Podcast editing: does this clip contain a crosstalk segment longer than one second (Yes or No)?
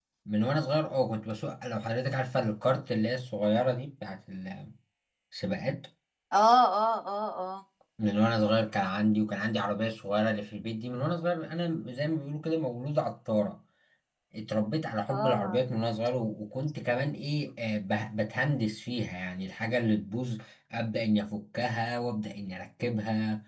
No